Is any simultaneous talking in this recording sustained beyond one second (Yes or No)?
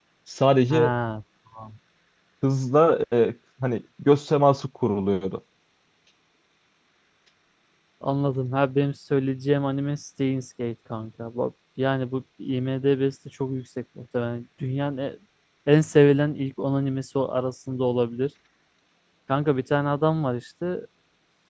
No